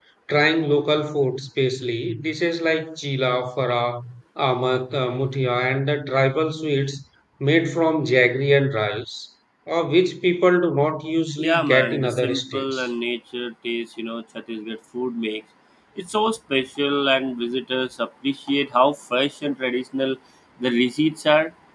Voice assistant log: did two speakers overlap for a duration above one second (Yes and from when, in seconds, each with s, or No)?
Yes, from 11.4 s